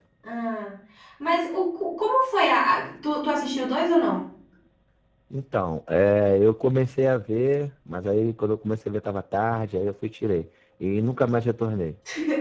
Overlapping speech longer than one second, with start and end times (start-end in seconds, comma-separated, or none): none